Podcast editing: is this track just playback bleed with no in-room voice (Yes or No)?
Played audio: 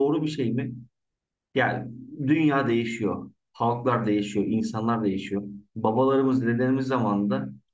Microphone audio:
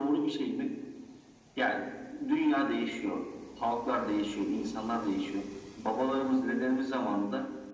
Yes